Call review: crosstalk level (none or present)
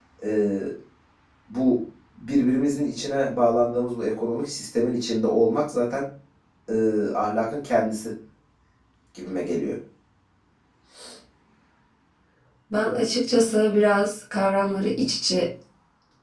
none